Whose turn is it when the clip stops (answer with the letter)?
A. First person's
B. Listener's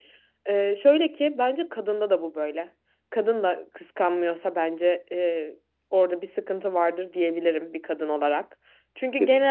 A